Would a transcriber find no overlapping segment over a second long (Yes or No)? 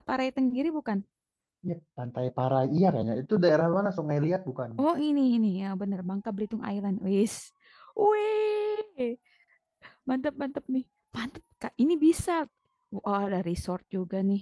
Yes